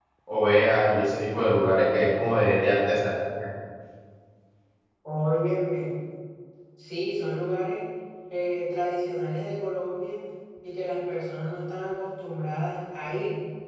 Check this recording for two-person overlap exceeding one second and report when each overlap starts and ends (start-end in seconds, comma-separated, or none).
none